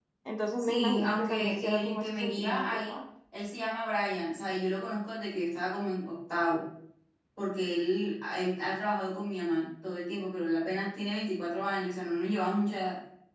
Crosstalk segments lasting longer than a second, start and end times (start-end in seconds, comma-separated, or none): 0.6-3.0